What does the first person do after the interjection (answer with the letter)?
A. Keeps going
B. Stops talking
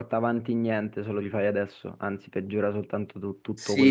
B